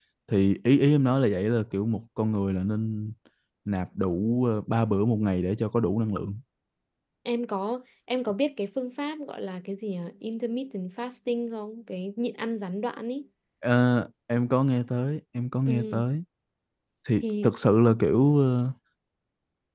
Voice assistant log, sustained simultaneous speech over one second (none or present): none